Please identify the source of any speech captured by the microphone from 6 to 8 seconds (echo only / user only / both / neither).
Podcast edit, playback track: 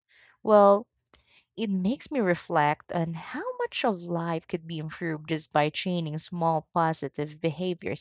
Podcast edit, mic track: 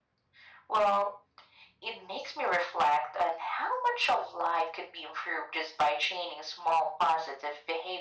echo only